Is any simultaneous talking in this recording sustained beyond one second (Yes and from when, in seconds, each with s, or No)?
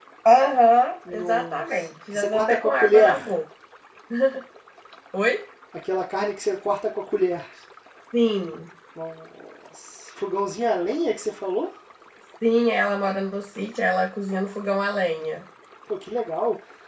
Yes, from 1.1 s